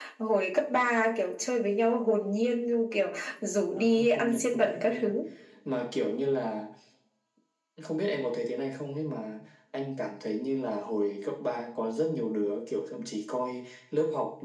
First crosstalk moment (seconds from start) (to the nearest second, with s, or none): 4 s